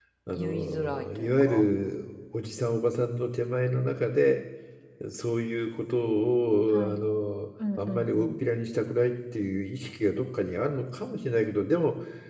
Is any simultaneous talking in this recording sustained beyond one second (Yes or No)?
Yes